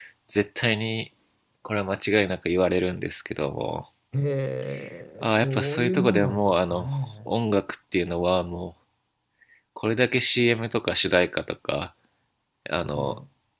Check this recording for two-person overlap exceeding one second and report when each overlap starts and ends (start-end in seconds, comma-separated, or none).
5.2-6.9